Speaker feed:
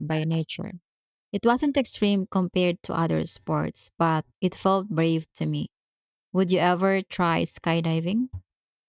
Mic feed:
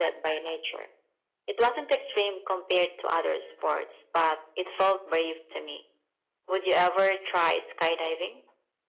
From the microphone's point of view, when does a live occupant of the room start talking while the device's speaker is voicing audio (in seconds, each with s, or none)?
none